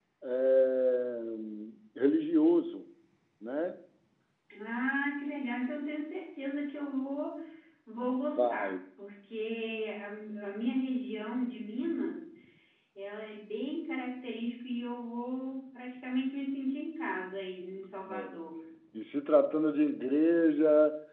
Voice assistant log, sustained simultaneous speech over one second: none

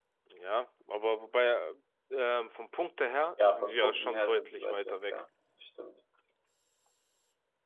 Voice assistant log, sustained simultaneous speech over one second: present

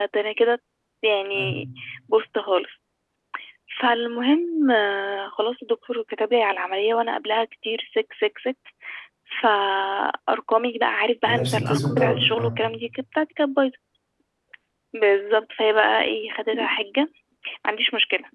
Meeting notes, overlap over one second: present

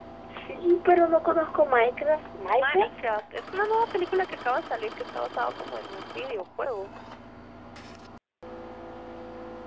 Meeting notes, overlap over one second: none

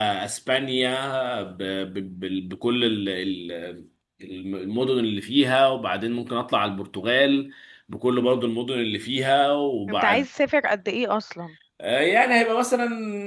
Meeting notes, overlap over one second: none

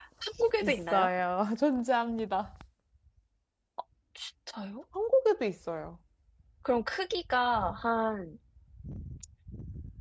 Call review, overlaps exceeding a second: none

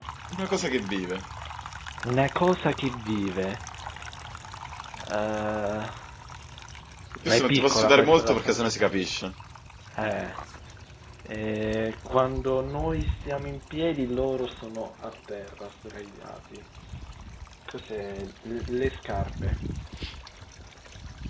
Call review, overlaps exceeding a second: present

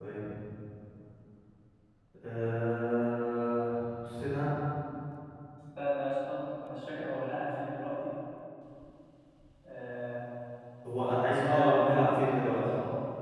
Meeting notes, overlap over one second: present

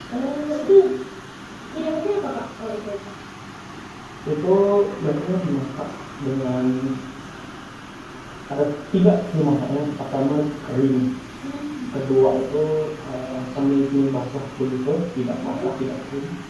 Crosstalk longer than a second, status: none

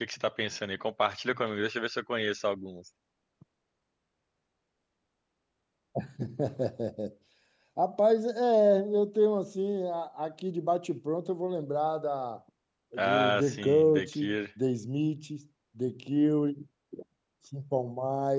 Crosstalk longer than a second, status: present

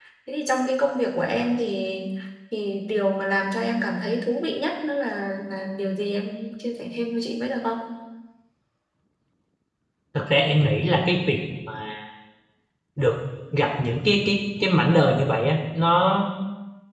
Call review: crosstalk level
none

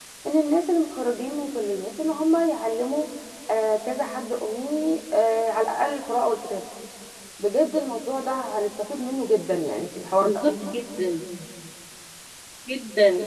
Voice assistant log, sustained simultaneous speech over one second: none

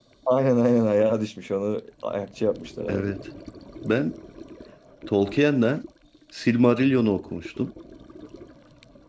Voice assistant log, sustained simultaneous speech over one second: none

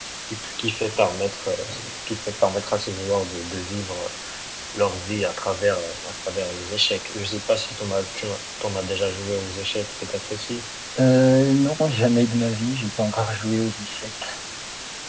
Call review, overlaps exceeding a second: none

